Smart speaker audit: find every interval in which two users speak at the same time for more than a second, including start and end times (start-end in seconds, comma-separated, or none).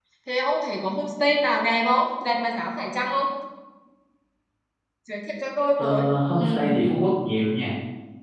none